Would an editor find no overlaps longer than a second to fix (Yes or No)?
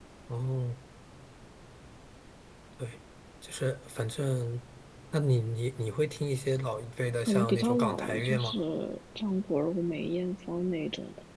No